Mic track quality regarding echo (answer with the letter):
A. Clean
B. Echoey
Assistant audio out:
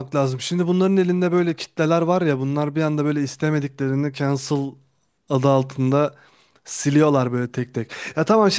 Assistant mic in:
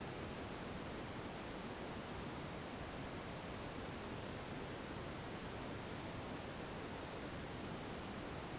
A